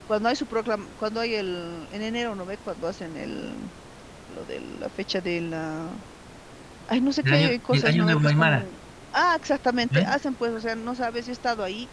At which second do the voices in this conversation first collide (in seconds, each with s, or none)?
7.2 s